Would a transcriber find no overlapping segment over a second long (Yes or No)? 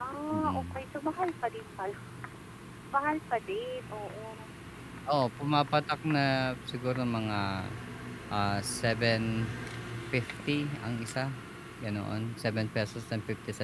Yes